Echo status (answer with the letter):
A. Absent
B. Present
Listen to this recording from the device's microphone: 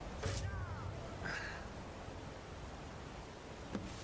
A